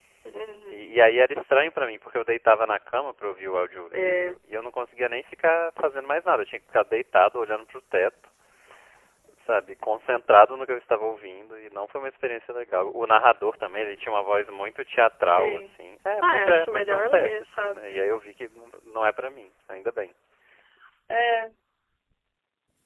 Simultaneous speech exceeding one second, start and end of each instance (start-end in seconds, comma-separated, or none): 16.2-17.8